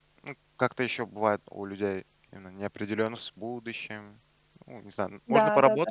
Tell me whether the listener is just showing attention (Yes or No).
Yes